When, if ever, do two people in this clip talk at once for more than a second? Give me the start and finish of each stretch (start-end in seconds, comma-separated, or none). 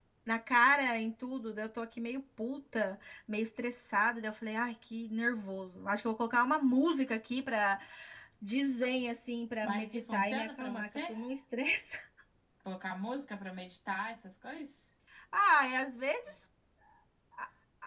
9.6-11.1